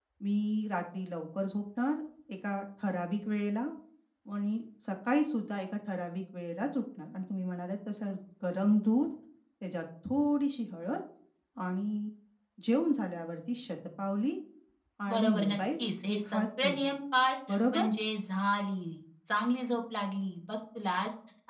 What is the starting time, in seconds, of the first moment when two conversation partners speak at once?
15.1 s

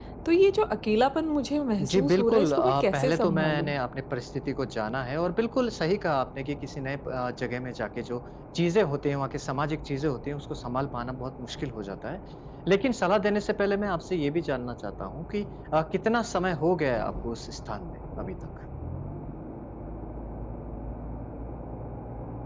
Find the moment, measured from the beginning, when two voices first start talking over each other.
1.8 s

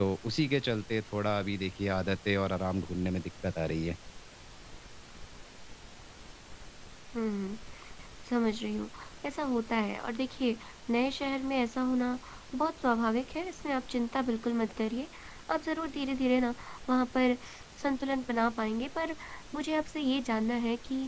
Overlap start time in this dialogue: none

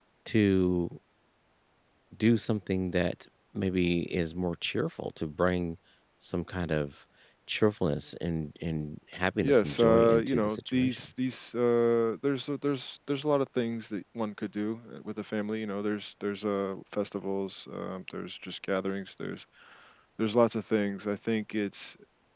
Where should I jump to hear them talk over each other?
9.4 s

